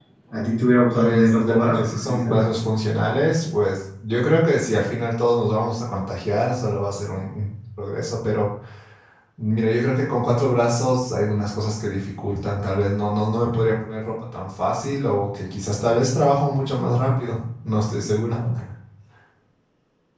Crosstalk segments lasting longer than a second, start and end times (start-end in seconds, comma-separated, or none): 0.9-2.4